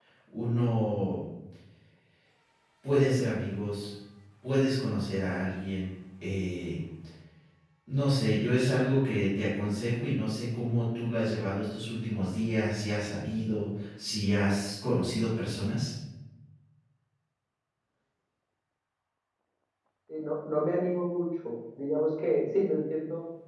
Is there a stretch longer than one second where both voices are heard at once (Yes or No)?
No